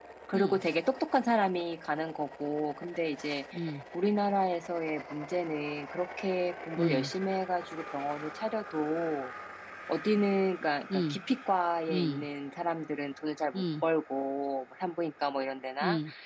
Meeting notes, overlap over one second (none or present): none